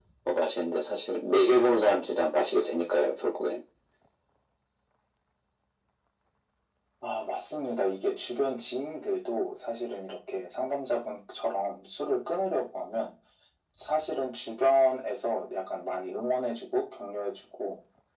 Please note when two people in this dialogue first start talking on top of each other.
none

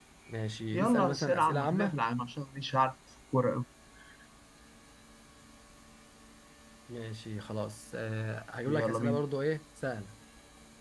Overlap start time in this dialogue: 0.7 s

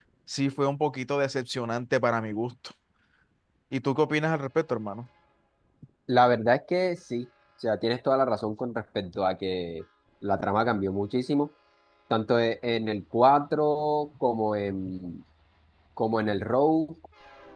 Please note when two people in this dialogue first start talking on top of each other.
none

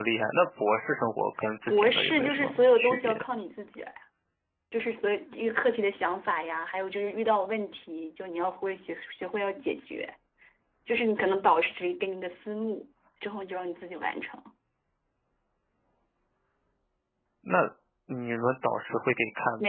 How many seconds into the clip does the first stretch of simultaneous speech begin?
1.7 s

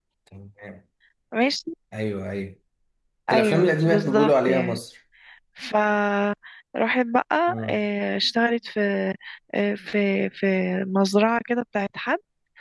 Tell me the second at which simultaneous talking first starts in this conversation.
3.3 s

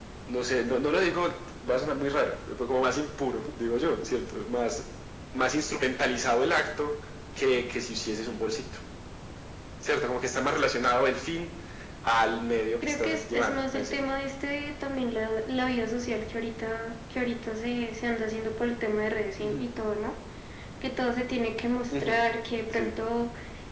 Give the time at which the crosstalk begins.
12.8 s

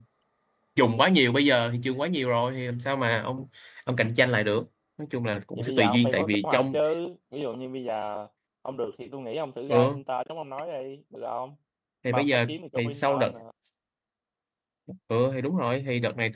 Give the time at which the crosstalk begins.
5.6 s

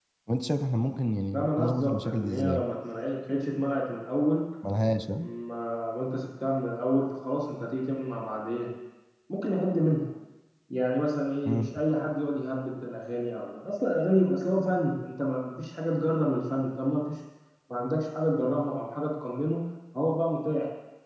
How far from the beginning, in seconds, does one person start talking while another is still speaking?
1.3 s

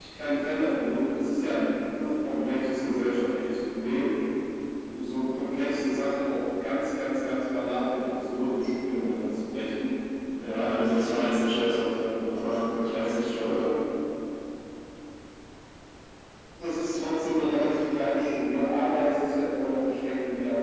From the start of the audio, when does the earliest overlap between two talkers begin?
10.4 s

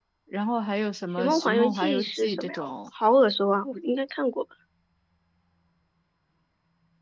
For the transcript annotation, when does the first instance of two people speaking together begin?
1.2 s

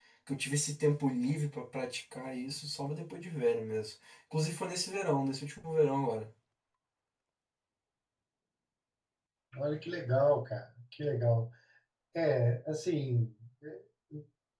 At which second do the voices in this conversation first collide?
none

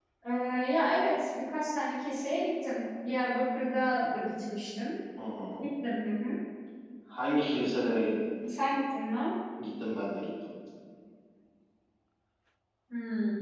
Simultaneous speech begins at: none

